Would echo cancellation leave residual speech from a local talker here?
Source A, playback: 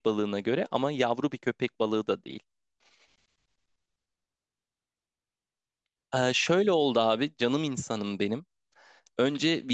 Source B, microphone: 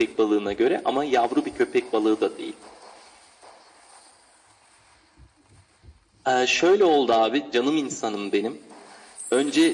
No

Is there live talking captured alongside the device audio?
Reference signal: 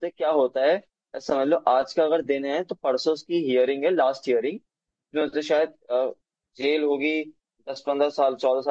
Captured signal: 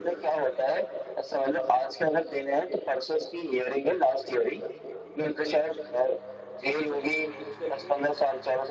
Yes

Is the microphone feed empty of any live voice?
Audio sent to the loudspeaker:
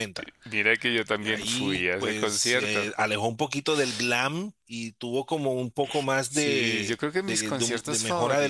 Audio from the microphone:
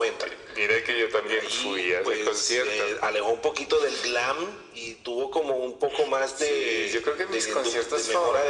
Yes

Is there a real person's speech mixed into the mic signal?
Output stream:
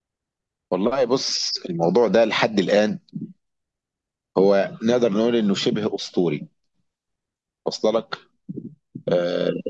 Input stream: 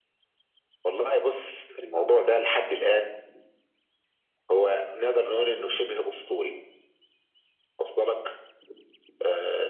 No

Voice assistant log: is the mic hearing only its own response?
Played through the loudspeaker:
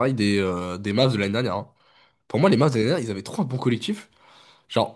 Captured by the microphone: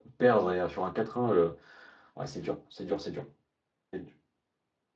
No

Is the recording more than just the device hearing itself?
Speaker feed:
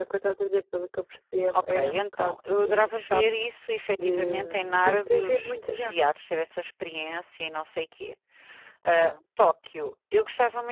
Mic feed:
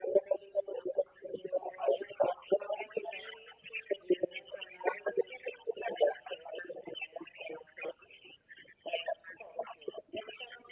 No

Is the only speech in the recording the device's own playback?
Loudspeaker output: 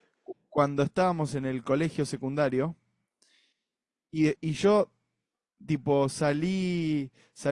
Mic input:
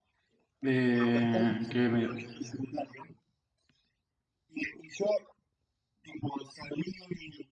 No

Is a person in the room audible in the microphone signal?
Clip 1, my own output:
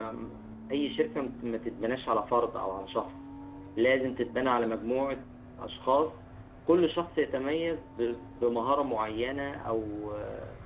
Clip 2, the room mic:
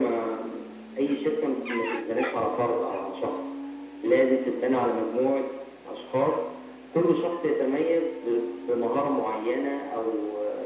No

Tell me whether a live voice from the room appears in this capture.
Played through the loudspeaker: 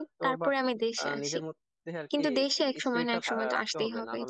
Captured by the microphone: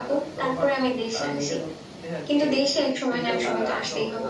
Yes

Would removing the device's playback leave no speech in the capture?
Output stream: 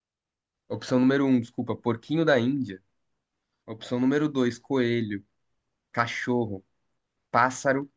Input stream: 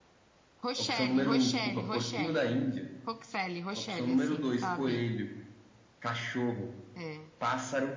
No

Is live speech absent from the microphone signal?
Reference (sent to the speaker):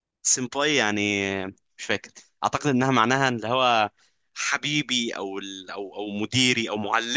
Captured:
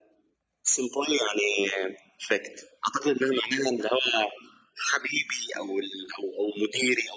Yes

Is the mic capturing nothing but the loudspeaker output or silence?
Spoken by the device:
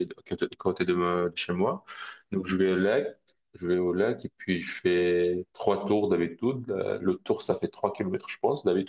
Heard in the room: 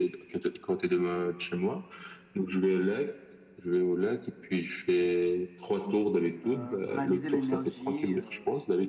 No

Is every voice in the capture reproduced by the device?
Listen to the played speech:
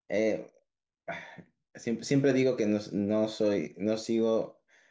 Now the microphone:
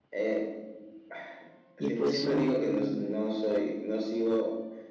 No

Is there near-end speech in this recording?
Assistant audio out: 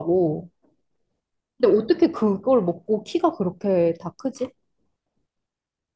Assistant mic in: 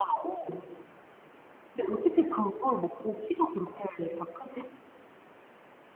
No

